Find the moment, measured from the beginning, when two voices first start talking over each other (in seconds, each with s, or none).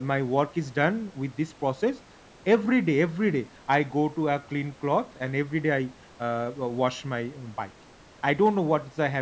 none